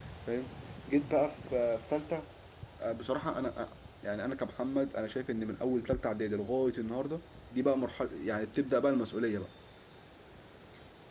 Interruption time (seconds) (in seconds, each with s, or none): none